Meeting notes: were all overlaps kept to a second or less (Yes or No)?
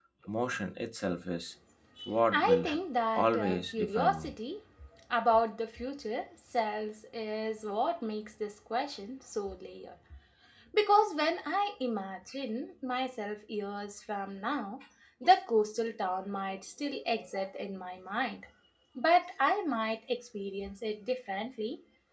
No